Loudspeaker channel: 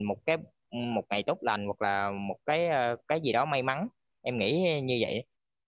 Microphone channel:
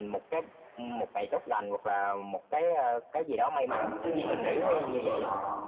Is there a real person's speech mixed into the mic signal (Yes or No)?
Yes